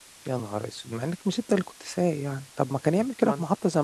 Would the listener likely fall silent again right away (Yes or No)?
Yes